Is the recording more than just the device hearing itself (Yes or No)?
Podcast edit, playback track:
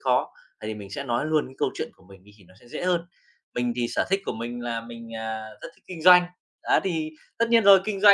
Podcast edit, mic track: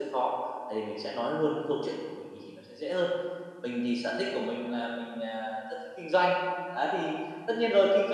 No